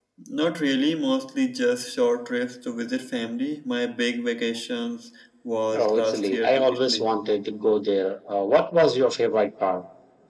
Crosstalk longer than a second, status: present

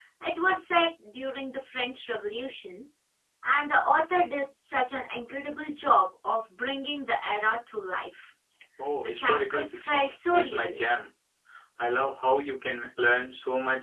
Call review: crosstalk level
present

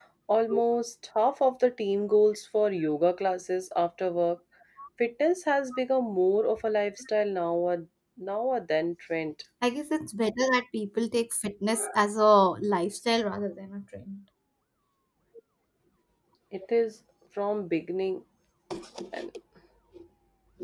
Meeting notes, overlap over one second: none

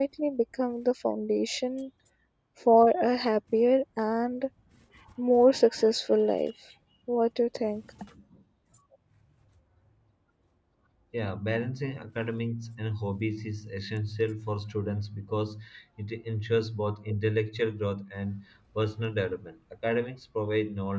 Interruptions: none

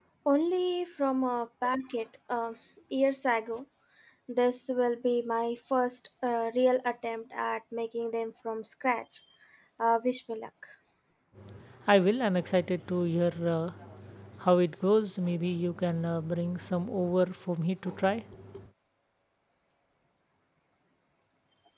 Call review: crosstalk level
none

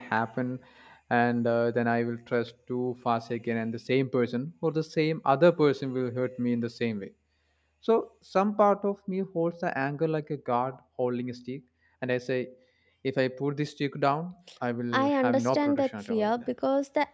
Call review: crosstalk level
present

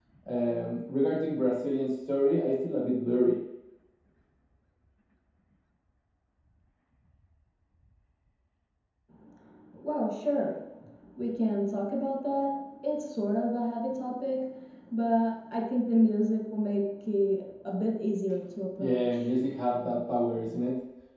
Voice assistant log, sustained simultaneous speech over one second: none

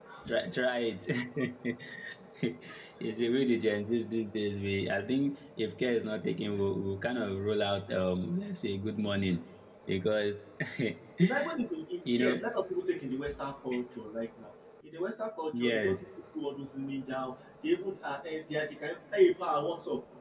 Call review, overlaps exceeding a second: none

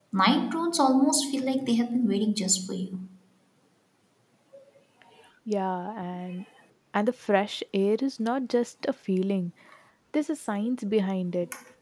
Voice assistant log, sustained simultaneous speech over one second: none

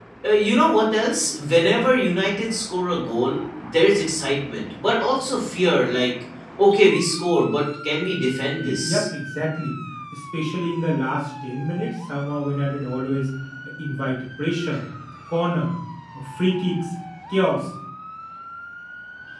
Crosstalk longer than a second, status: none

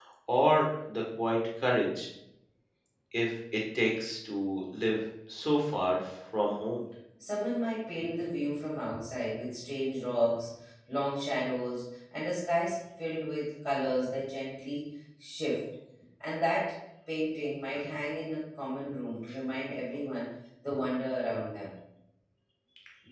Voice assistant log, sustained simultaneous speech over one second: none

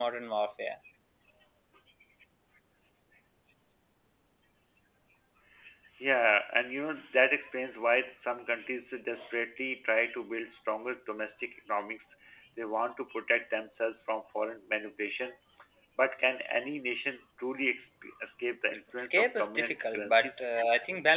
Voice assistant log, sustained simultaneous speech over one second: present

